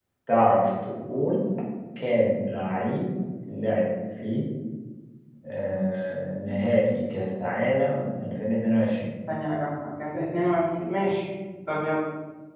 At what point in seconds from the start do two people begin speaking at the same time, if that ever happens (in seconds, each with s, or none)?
none